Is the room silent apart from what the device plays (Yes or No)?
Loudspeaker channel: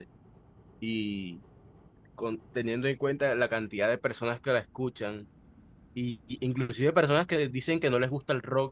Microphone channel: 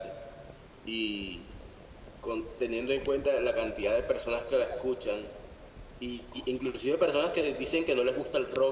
Yes